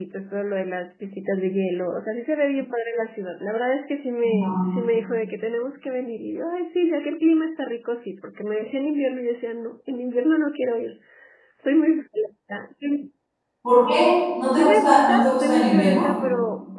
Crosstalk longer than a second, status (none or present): present